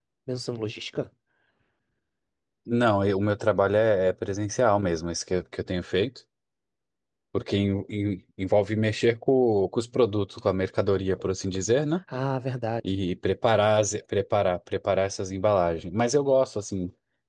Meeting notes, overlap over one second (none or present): none